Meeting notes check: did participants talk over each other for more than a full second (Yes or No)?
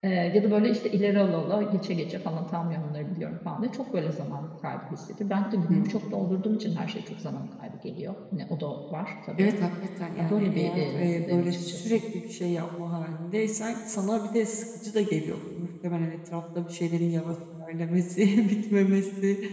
Yes